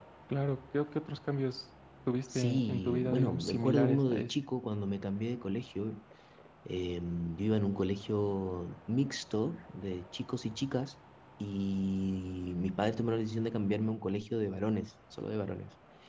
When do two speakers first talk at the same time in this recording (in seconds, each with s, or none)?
2.3 s